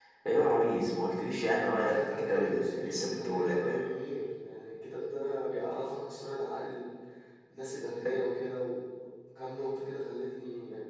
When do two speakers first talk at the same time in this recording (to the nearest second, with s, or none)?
2 s